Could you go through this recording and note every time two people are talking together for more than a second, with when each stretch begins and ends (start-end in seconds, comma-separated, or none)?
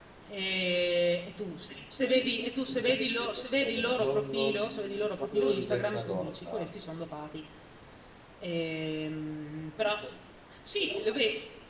4.0-6.7